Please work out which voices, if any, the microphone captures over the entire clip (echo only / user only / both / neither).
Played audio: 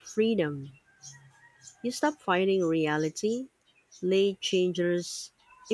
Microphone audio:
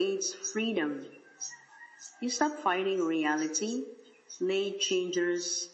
echo only